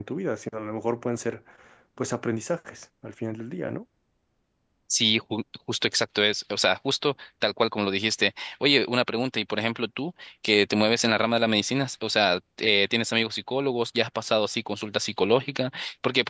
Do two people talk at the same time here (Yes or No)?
No